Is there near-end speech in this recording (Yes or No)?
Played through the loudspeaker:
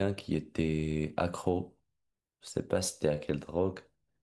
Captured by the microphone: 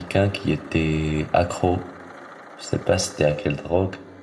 No